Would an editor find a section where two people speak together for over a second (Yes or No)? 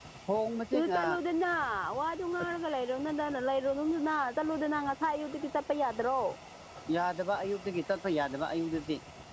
No